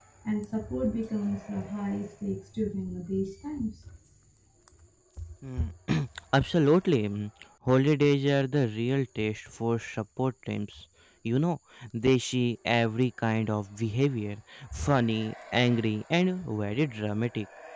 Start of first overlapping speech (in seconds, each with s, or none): none